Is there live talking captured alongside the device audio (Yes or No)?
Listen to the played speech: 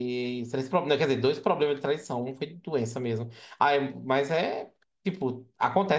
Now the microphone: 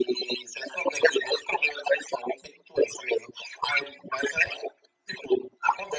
No